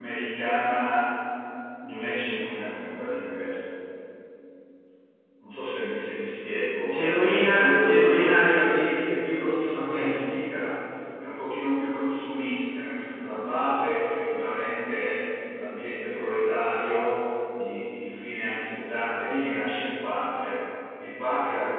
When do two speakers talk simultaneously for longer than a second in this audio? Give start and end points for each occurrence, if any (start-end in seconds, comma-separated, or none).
6.9-8.7